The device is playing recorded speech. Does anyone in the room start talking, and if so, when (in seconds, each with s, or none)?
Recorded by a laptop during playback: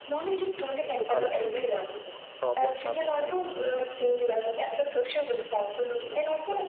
1.0 s